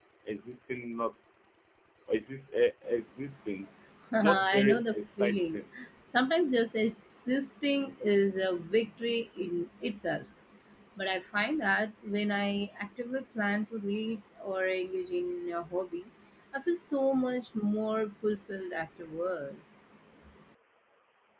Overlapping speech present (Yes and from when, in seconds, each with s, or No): Yes, from 4.2 s